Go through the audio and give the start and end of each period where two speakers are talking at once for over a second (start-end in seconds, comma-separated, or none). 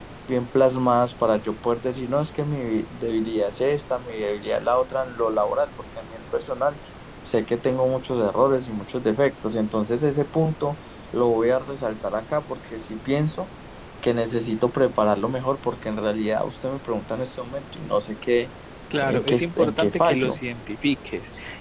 19.0-20.4